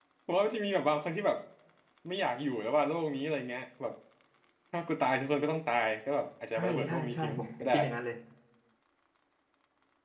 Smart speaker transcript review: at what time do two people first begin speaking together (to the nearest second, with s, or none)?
7 s